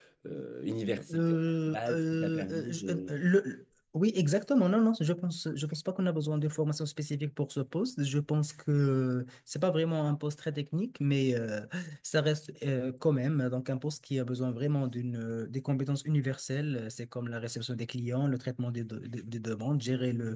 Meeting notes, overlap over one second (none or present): present